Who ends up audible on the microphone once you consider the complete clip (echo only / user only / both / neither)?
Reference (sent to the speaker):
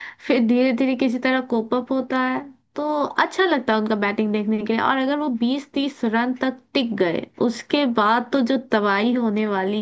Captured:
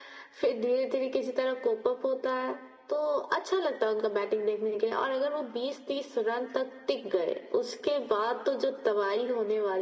echo only